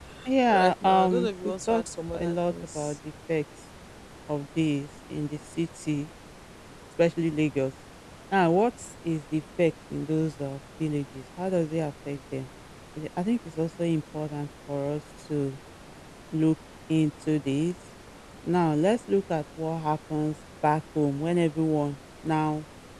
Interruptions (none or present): present